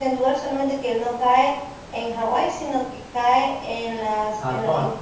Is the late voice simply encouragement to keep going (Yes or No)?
Yes